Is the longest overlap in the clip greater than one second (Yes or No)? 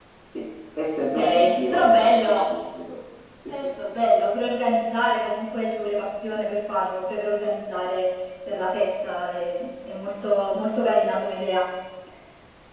Yes